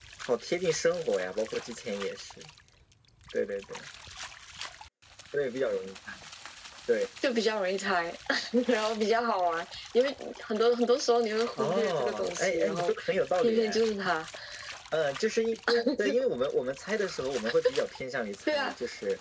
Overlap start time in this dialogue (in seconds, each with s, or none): 11.6 s